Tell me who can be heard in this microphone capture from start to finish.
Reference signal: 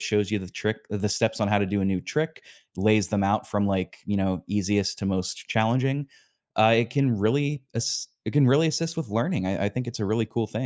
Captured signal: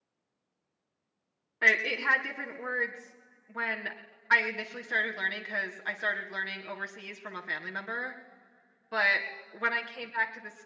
user only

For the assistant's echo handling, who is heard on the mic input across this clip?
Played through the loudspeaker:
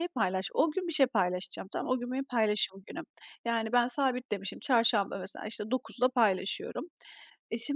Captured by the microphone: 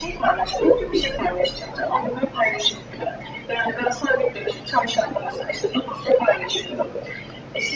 echo only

